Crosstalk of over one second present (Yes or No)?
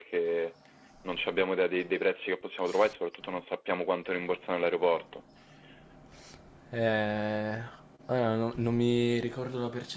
No